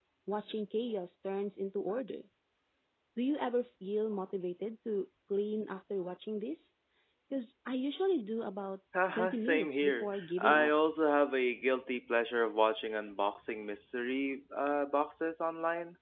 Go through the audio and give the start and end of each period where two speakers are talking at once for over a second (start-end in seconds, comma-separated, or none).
9.1-10.7